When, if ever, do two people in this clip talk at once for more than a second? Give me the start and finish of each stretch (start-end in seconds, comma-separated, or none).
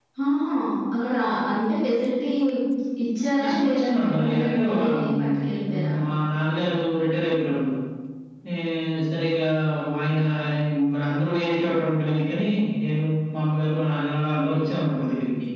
3.4-5.3